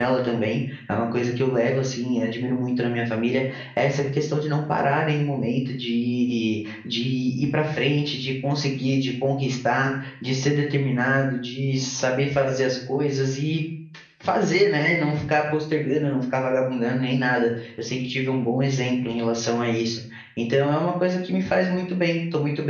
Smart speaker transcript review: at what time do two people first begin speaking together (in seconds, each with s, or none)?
none